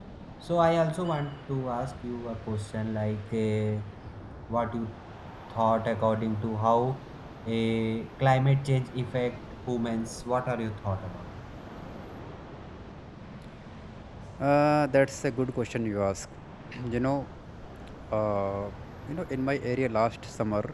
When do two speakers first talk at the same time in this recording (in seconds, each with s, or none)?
none